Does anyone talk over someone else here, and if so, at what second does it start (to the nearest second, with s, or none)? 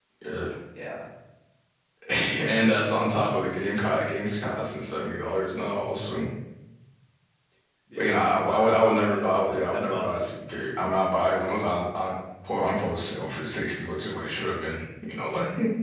8 s